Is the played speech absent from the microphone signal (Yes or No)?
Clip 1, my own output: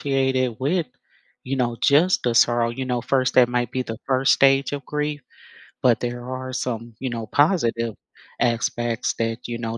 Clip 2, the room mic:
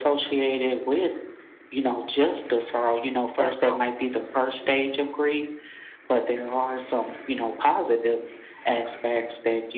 No